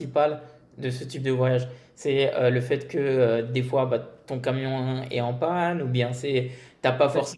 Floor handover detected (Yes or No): No